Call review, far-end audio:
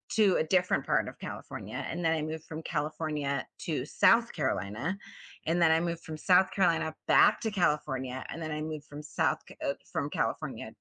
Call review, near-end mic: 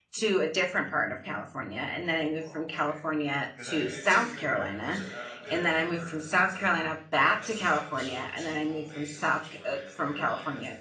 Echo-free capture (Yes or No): No